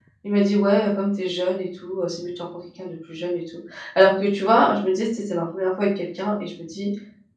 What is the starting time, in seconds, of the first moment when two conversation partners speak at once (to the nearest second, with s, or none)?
none